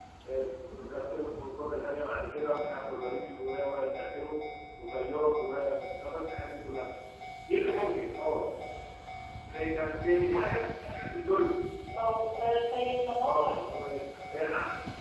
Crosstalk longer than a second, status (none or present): none